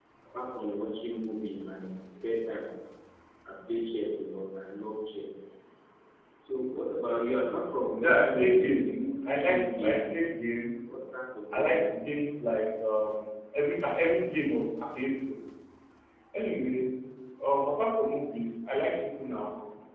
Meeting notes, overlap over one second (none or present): present